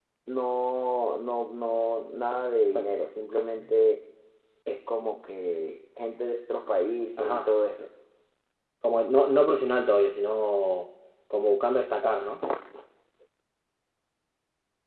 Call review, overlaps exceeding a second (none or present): none